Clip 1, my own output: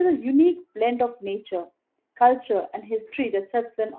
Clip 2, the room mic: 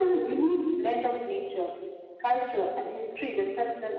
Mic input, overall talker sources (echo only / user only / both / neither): echo only